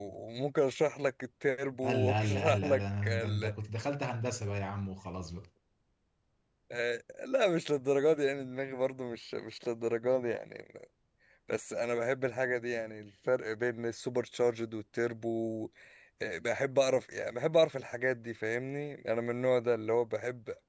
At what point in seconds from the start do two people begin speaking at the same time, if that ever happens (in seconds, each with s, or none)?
1.8 s